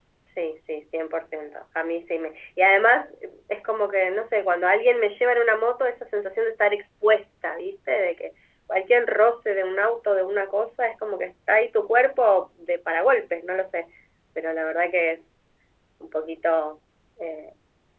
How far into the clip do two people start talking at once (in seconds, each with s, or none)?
none